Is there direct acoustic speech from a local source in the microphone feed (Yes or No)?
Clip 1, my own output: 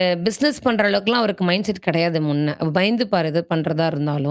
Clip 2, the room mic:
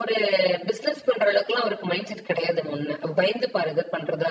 No